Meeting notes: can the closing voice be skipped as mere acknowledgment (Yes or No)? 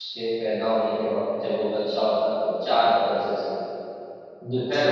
Yes